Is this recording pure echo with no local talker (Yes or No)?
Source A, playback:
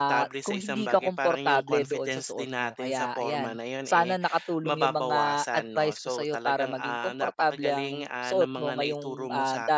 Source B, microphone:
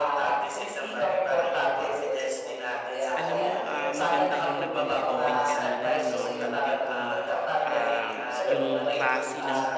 No